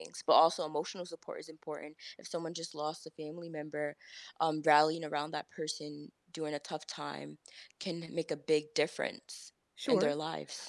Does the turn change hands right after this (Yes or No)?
Yes